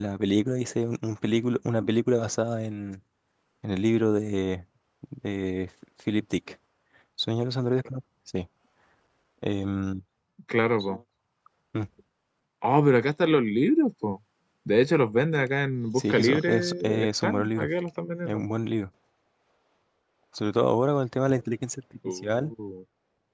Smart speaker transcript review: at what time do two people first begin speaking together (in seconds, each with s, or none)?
15.9 s